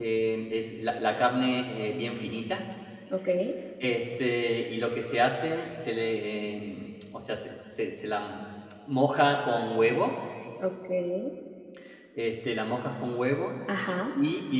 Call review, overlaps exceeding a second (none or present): none